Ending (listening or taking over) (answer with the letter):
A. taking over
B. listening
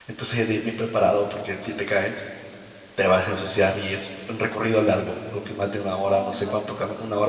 B